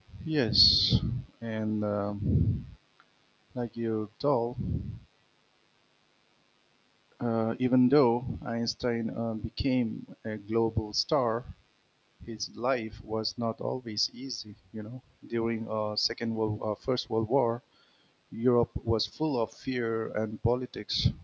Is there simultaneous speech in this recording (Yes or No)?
No